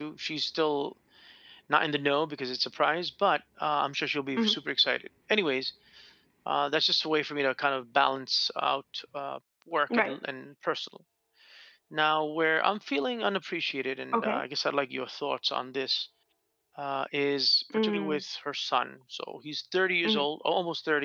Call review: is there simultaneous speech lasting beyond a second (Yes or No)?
No